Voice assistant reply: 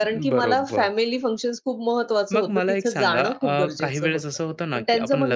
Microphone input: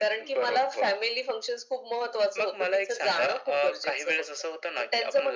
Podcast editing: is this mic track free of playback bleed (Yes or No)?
No